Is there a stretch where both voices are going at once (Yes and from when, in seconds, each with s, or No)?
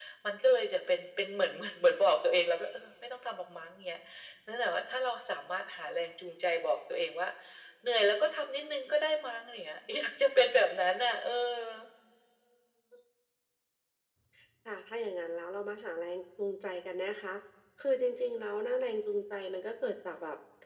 No